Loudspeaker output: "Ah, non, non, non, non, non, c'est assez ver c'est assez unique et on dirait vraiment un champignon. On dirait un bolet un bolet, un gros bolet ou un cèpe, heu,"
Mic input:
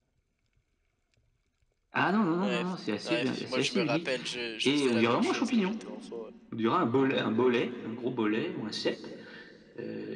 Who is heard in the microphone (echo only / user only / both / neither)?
both